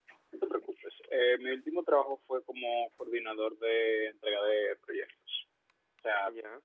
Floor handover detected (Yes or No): No